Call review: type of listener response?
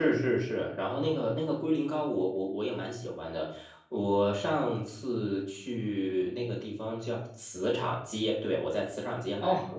taking over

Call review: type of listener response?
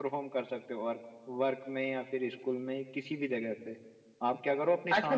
taking over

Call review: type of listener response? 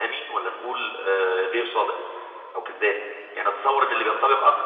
listening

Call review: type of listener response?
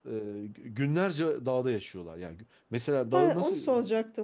taking over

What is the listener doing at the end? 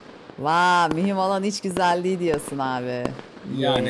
taking over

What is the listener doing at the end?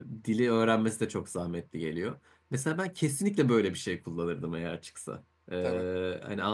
listening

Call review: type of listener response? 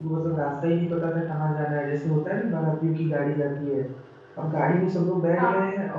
listening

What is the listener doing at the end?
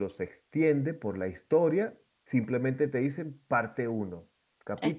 listening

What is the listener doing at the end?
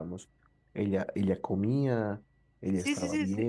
taking over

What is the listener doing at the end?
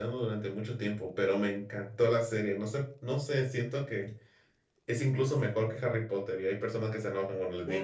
taking over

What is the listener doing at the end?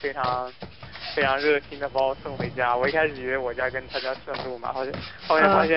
listening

